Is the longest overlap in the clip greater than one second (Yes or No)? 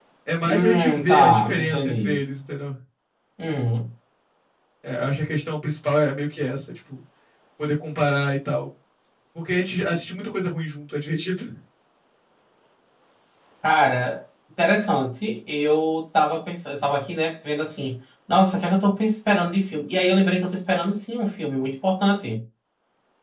Yes